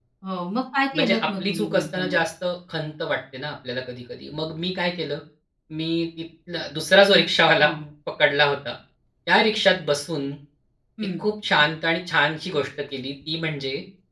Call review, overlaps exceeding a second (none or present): present